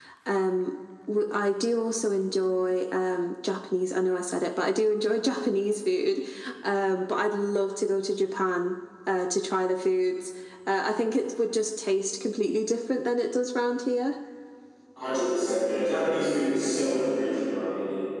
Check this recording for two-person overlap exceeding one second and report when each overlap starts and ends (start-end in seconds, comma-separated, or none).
none